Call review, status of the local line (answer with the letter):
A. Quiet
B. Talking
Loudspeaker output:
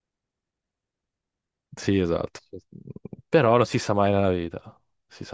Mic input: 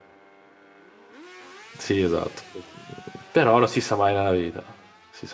A